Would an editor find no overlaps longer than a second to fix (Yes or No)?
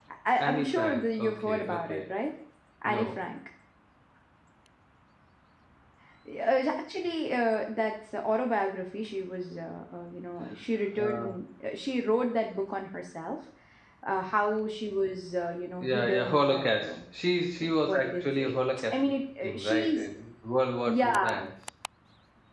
No